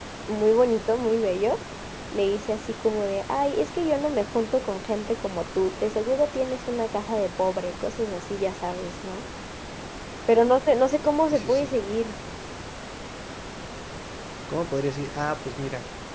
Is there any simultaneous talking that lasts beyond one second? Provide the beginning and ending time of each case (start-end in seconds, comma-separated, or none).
none